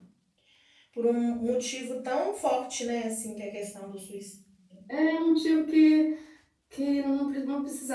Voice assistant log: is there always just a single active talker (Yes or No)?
Yes